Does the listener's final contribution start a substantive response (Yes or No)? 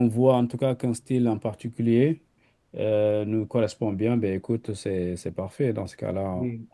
Yes